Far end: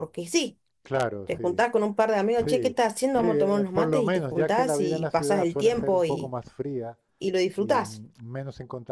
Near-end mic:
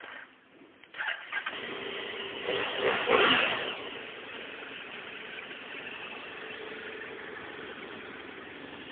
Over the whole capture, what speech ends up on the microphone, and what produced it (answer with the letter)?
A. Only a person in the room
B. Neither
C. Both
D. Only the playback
B